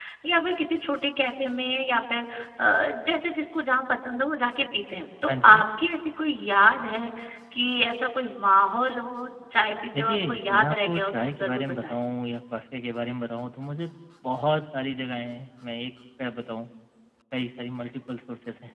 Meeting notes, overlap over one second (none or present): present